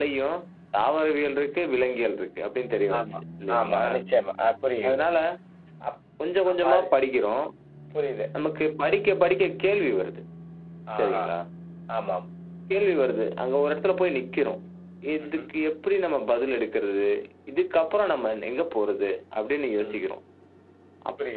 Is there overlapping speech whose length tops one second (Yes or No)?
No